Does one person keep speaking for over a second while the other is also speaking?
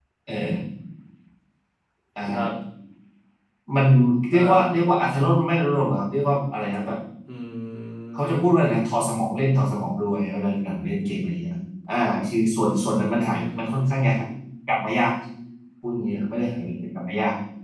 Yes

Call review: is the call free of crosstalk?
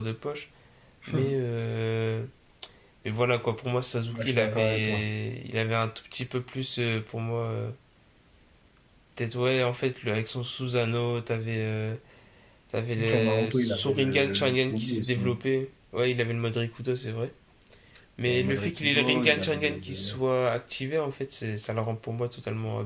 No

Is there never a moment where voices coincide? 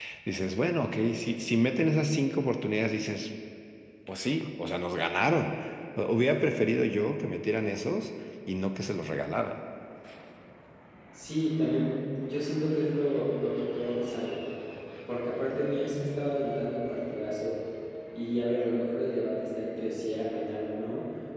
Yes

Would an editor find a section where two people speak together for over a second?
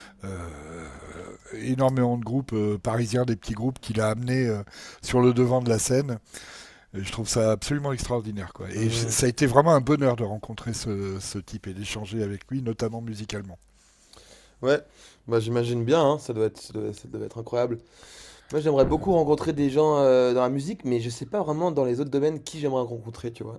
No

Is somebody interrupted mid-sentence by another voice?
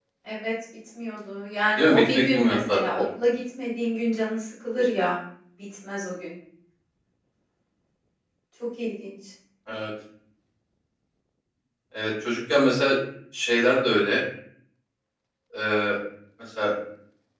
Yes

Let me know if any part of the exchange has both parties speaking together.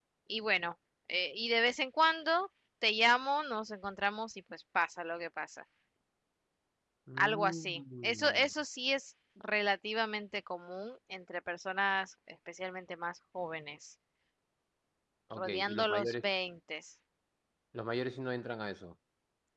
Yes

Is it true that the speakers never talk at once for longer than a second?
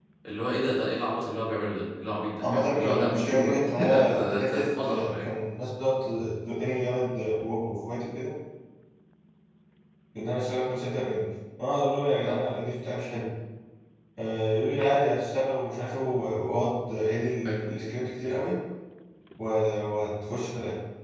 No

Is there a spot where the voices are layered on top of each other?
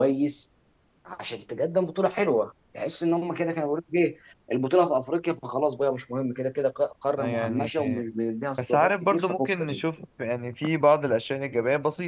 Yes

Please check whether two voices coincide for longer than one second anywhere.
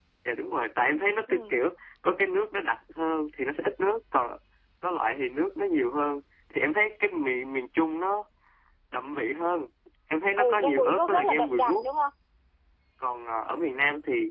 Yes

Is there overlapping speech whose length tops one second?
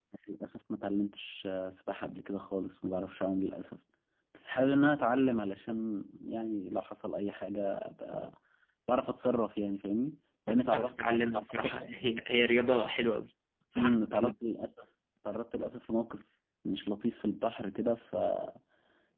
Yes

